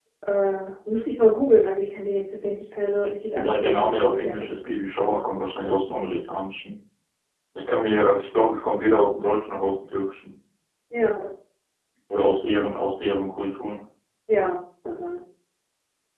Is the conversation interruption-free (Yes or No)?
No